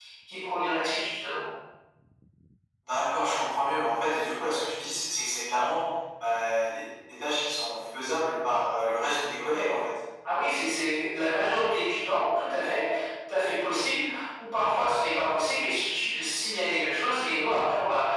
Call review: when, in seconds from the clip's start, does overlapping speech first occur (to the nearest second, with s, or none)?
none